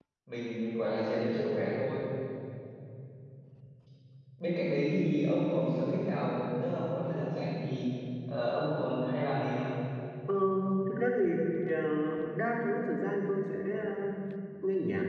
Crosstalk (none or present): none